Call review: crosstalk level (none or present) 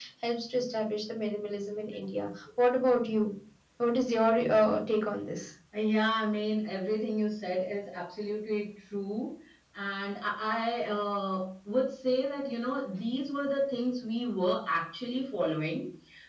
none